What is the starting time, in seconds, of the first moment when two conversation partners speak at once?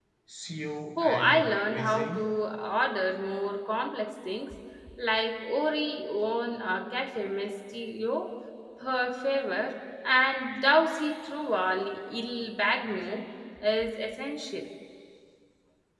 1 s

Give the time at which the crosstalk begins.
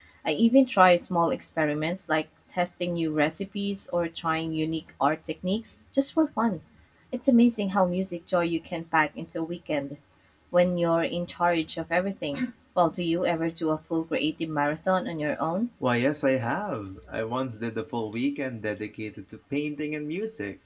none

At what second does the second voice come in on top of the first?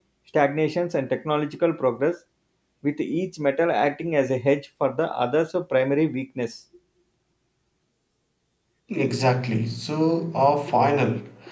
none

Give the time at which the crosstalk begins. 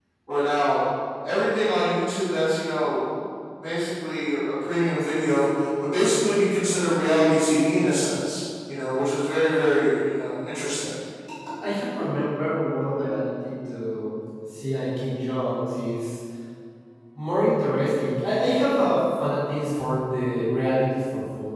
none

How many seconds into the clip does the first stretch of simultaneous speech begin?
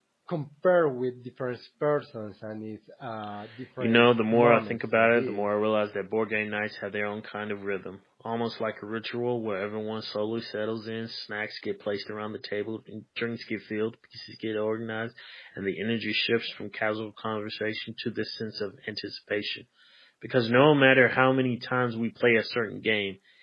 4 s

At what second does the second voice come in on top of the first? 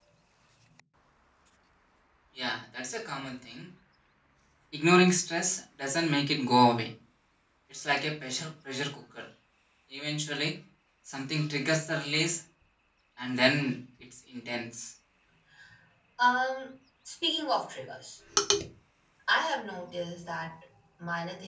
none

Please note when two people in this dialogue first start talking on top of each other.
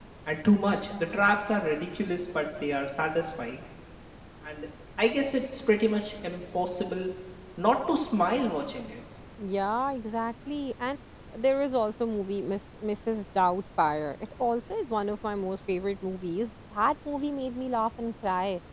none

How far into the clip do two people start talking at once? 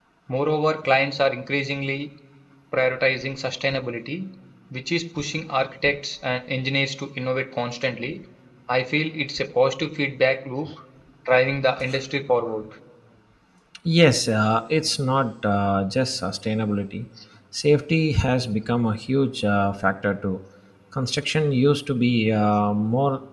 none

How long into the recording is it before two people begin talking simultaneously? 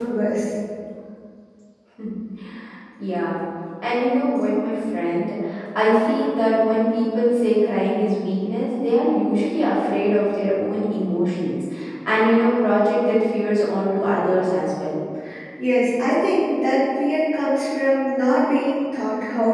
none

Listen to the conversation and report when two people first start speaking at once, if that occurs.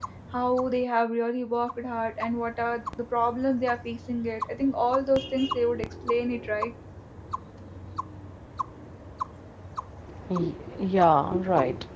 none

